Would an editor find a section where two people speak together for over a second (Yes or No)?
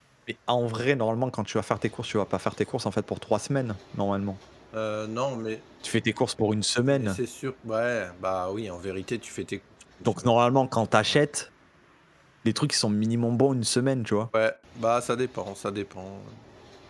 No